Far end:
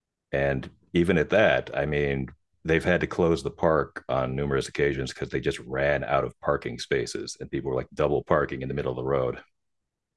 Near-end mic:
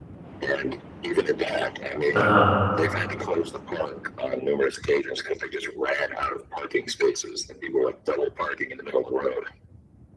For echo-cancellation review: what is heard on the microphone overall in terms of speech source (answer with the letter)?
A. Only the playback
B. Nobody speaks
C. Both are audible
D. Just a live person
C